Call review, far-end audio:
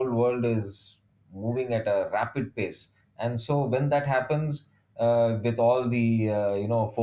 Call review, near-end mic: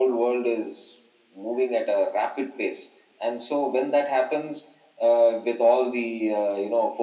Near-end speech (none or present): none